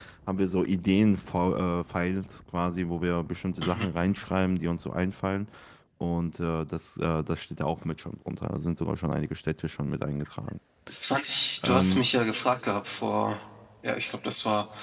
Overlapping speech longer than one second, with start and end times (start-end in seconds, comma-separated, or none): none